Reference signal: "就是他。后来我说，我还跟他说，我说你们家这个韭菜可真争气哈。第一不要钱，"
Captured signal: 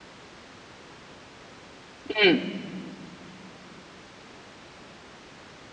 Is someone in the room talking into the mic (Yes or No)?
Yes